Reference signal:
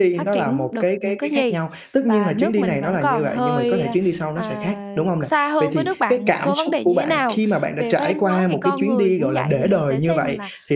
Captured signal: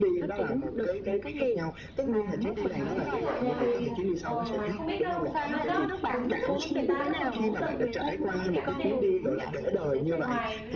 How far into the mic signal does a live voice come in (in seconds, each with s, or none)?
2.8 s